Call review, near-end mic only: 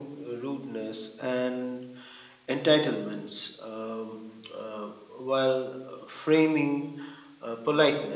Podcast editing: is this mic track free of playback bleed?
No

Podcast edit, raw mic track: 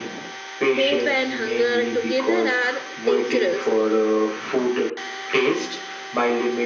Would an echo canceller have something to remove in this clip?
Yes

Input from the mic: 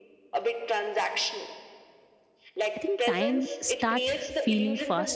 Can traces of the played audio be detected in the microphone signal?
Yes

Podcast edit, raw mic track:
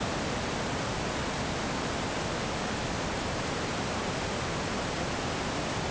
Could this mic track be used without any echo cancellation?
Yes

